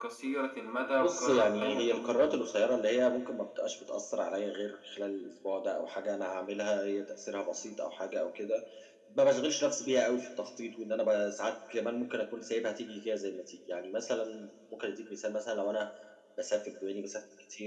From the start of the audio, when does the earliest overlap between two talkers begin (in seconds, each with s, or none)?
1.0 s